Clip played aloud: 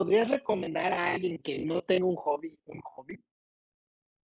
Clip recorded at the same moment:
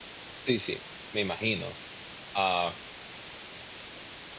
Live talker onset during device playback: 0.5 s

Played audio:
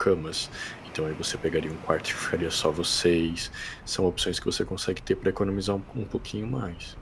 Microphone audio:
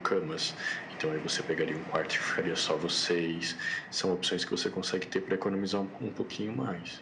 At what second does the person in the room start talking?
none

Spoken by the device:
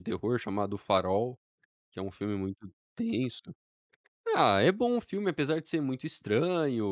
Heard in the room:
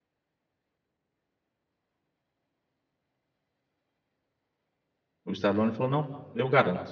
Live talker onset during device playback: 5.2 s

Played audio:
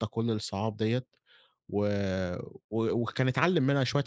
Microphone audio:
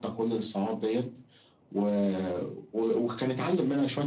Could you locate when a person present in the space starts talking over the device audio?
none

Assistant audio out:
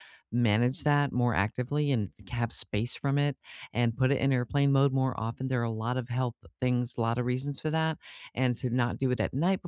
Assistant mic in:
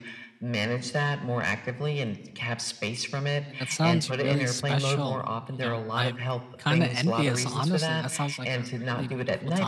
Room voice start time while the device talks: 3.4 s

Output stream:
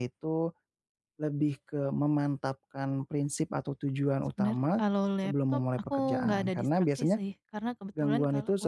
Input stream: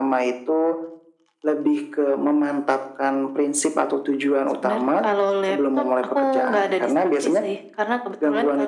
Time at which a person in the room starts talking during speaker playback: none

